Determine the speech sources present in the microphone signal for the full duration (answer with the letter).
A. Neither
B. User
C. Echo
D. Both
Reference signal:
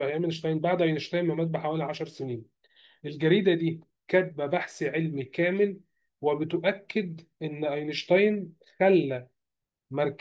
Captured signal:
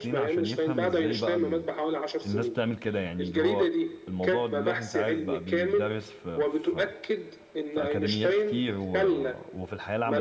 D